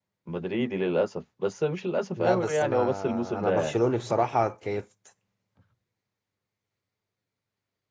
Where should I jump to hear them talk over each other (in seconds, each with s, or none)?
2.2 s